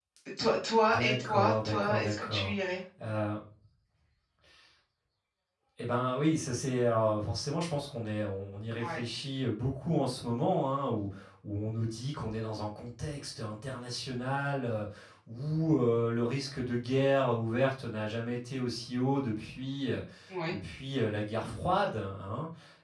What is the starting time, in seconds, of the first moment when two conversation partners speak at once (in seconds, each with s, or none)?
0.9 s